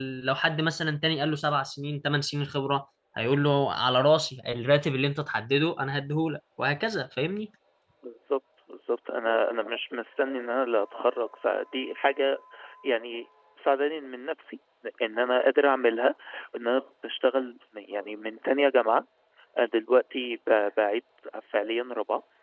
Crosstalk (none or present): none